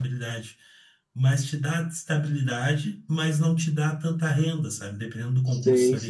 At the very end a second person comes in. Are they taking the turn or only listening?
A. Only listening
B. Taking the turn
A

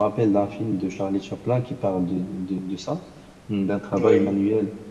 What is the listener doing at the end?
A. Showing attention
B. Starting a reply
A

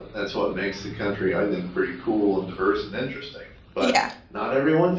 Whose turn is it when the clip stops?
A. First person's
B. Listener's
A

